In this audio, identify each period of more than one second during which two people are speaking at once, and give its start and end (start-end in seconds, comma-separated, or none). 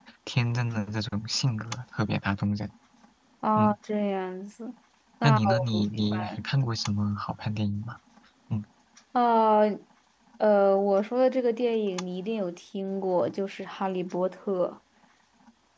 5.2-6.5